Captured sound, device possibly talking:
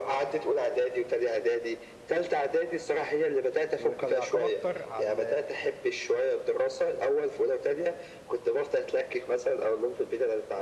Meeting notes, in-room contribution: present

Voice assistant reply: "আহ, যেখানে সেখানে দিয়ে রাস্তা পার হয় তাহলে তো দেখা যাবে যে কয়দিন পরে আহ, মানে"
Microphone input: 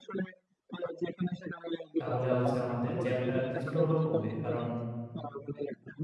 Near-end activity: present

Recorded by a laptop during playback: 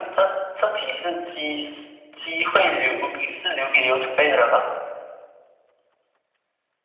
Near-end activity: none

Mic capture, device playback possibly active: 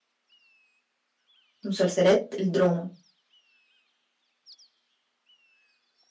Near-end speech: present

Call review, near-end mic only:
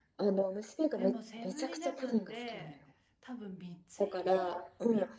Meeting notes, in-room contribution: present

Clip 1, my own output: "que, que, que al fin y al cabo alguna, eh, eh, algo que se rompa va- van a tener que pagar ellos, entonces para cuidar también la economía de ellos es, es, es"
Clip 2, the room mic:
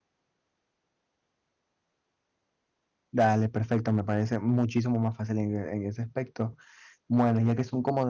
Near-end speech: present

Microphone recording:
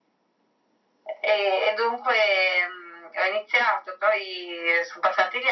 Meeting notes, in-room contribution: none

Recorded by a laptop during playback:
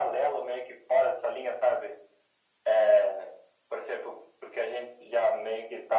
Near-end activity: none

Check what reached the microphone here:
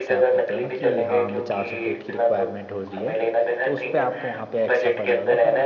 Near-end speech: present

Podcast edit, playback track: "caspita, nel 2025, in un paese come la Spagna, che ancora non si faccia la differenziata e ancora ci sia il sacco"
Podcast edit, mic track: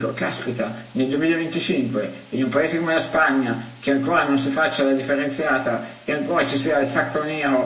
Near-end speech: none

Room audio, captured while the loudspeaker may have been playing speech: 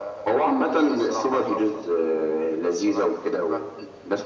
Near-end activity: none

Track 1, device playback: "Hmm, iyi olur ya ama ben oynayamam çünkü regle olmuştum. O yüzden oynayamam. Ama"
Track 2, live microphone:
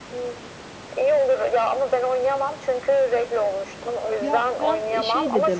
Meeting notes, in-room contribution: present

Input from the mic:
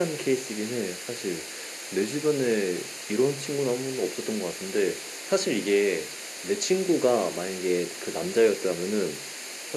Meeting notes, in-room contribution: none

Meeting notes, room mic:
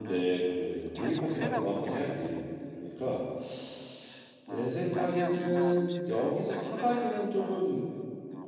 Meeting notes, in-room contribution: present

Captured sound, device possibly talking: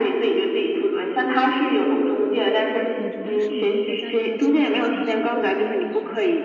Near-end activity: present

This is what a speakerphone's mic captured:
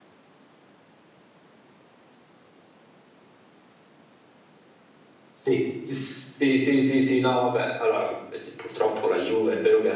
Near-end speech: present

